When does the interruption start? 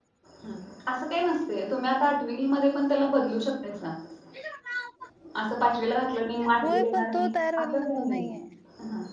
6.4 s

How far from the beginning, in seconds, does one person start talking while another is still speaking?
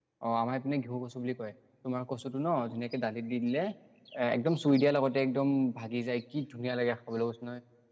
none

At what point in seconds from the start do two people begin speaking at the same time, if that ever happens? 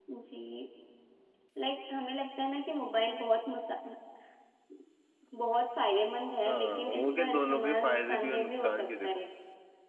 6.5 s

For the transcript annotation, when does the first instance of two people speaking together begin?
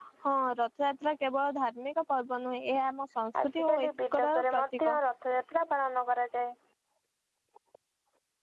3.3 s

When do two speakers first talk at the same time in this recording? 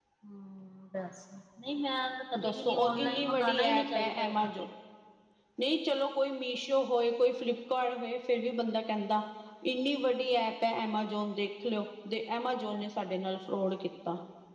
2.4 s

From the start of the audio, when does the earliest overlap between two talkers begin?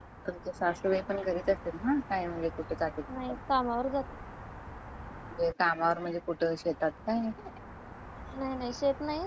none

